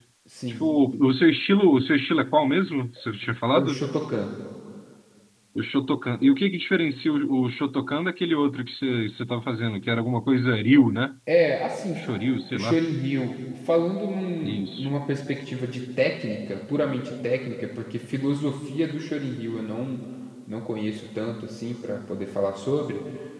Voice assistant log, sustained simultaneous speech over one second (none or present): none